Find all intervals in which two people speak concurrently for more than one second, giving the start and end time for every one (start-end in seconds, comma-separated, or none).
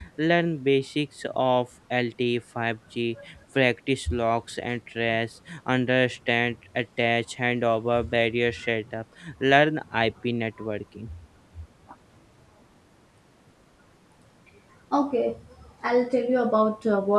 none